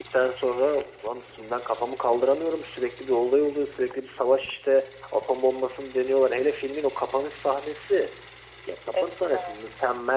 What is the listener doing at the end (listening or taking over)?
listening